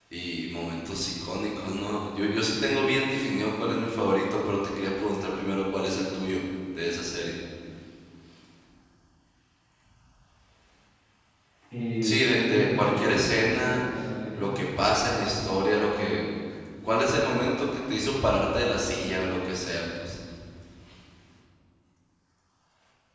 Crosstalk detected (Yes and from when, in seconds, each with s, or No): Yes, from 12.0 s